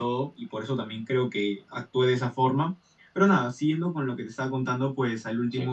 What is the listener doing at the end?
listening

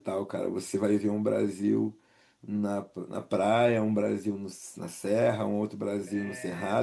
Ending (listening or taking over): listening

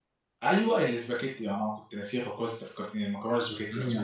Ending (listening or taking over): taking over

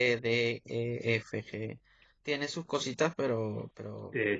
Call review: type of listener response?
taking over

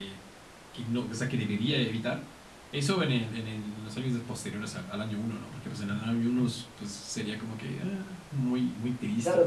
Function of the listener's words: taking over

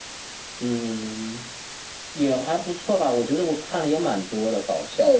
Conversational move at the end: taking over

